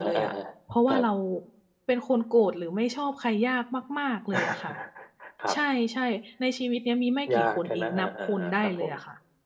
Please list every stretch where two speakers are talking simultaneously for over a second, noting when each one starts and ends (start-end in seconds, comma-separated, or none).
7.3-8.9